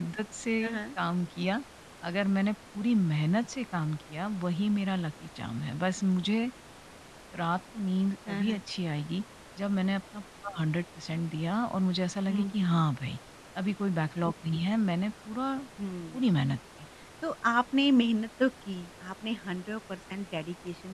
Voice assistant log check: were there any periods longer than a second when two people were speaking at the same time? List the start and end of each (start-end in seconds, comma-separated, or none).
none